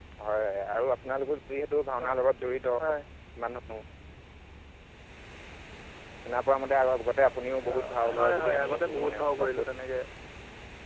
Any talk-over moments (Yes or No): Yes